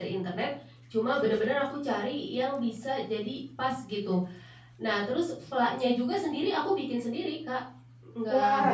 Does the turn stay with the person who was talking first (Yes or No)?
No